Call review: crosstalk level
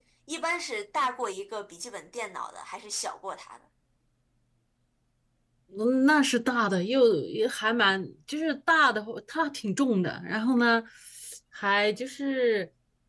none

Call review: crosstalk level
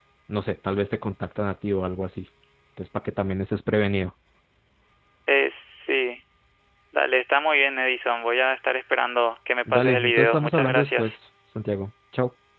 present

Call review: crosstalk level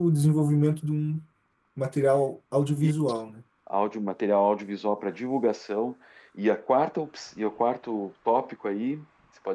none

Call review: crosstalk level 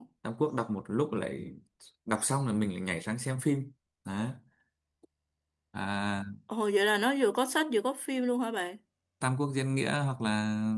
none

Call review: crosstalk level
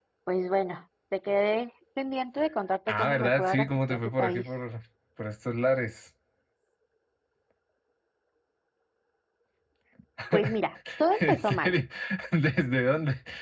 present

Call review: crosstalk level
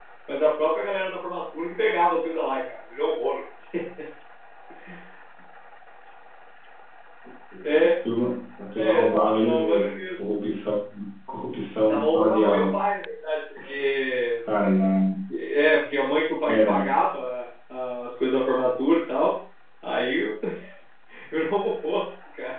present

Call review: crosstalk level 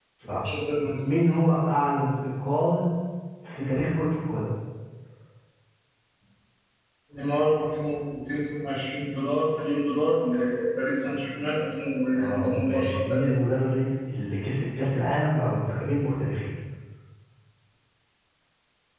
present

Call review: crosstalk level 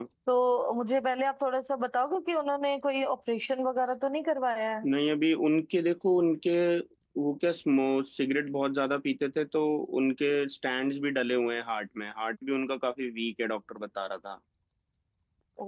none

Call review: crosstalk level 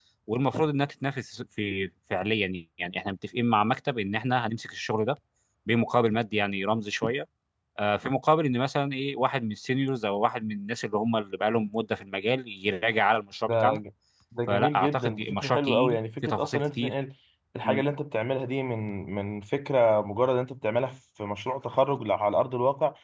present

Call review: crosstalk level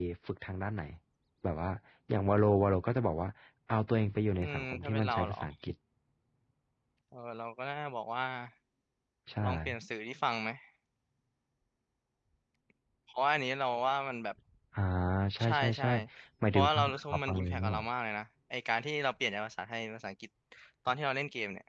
present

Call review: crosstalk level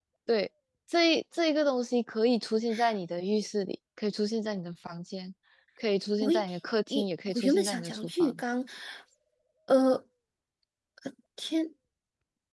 present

